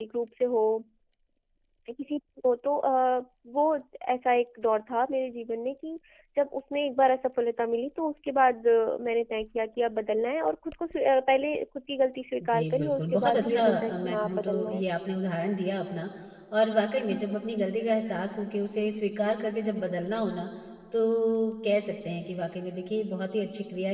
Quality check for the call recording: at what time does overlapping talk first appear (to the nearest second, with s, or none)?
12 s